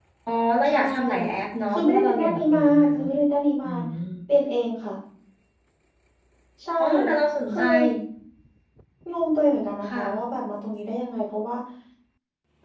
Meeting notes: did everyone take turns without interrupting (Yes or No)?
No